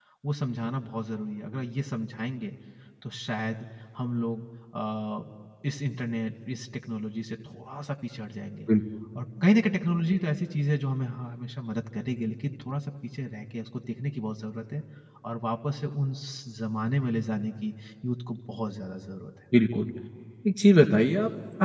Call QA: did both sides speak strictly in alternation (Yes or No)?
Yes